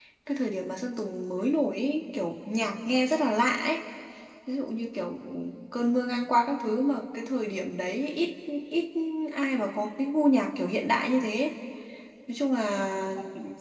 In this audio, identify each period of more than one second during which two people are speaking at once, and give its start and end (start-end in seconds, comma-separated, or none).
none